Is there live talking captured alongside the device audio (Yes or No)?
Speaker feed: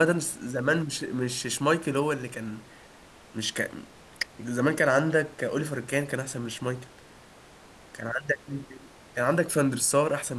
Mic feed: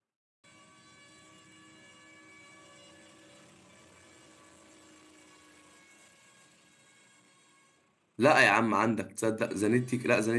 Yes